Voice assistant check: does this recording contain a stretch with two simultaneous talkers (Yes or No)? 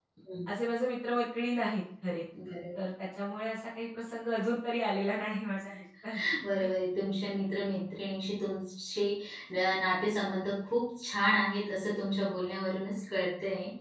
No